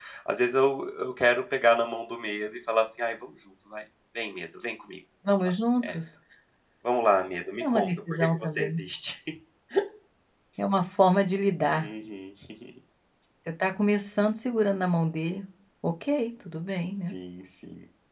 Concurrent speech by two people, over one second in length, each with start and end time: 7.6-8.8

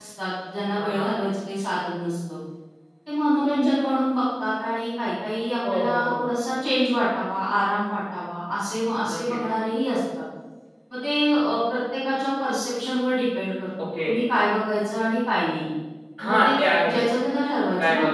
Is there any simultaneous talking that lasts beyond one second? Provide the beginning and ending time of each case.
none

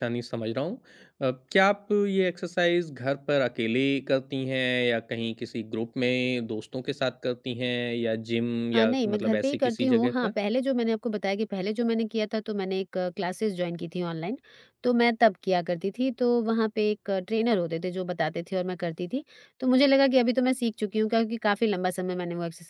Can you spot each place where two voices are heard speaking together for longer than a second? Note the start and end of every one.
8.7-10.3

